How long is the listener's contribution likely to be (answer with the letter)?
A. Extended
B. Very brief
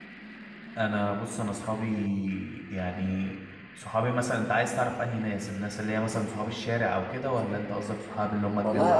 A